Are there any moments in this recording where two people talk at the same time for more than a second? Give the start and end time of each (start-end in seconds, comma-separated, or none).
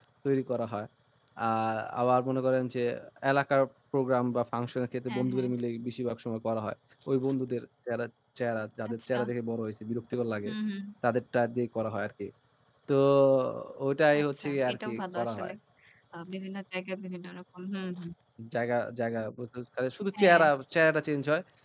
14.2-15.5